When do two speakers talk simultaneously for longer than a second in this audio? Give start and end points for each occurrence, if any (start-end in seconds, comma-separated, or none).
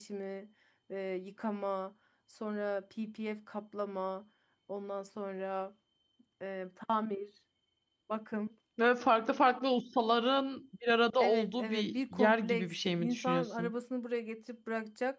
11.2-13.7